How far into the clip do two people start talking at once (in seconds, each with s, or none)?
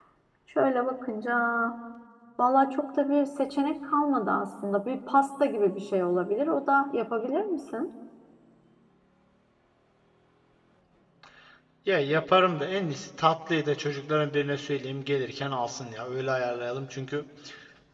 none